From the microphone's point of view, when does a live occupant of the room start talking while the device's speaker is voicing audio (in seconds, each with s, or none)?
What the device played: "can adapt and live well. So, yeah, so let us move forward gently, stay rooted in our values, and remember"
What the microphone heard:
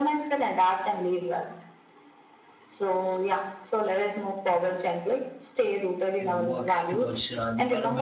6.2 s